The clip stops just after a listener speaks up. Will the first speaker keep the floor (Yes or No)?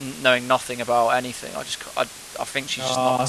No